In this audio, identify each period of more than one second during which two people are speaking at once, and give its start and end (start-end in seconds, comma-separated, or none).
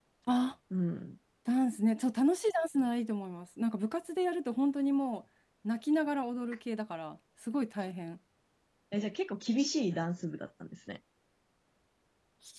none